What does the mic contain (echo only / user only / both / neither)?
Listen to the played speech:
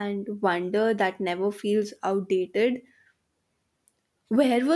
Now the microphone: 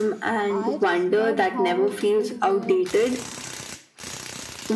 both